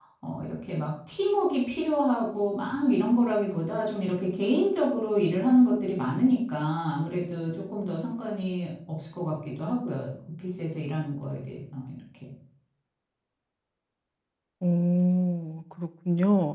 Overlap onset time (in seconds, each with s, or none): none